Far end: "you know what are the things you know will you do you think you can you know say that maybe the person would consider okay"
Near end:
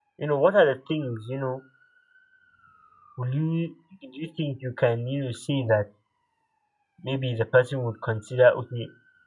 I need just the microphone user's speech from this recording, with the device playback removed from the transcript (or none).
none